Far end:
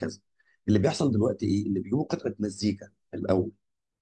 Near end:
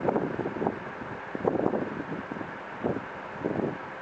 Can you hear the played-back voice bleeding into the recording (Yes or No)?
No